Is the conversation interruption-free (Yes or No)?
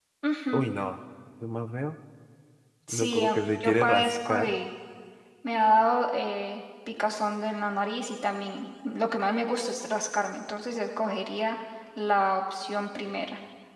No